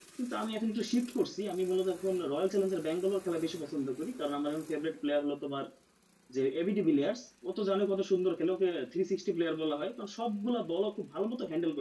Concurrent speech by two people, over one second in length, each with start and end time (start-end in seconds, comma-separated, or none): none